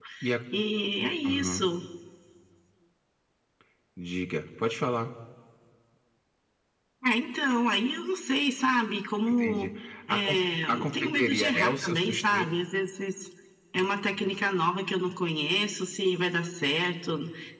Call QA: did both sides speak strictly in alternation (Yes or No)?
No